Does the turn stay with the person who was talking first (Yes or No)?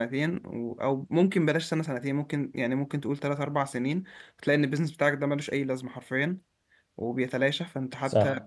No